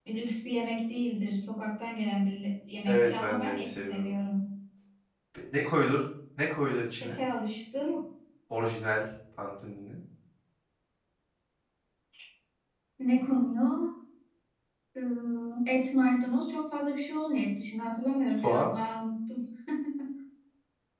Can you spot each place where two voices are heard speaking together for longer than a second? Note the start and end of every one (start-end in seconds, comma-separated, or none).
2.9-4.1